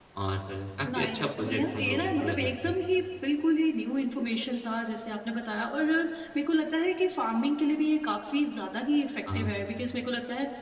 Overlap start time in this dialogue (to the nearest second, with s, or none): 1 s